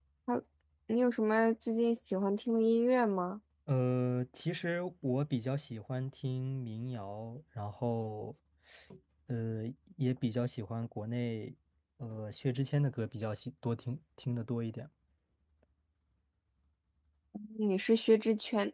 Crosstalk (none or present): none